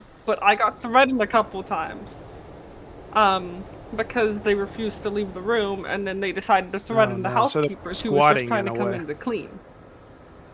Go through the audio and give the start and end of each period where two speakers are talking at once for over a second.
6.9-9.0

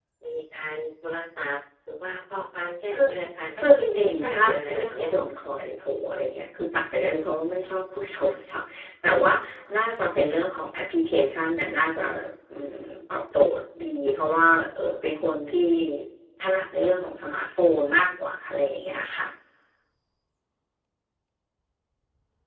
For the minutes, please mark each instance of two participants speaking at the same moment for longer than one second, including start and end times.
3.6-5.2

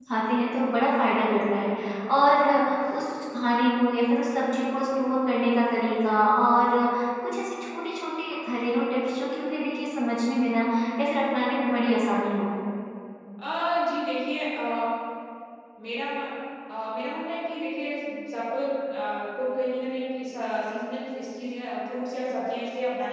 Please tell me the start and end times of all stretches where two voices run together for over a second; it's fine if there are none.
none

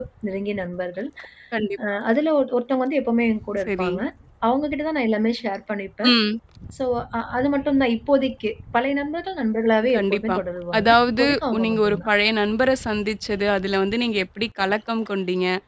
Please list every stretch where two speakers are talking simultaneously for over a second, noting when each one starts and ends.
10.8-12.1

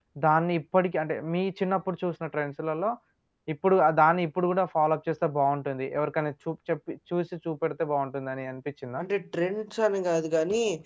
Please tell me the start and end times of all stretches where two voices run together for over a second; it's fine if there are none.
none

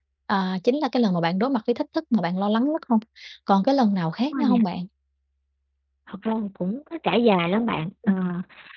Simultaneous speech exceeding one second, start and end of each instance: none

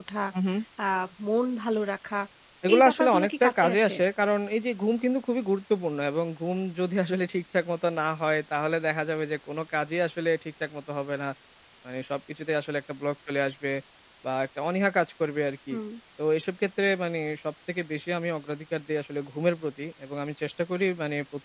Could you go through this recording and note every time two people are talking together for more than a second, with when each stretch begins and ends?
2.7-4.0

